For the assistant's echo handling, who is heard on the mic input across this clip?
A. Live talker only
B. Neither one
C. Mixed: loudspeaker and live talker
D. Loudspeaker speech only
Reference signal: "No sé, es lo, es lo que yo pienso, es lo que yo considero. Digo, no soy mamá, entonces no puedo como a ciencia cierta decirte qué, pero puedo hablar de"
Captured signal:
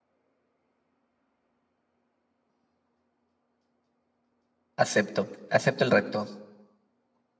A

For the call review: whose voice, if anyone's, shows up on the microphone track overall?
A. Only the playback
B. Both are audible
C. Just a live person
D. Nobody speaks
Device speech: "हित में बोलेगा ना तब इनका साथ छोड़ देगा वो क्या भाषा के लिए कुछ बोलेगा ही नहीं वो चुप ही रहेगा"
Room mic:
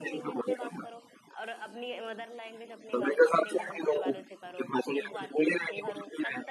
B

